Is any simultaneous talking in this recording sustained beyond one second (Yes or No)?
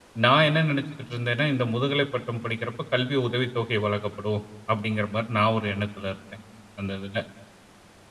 No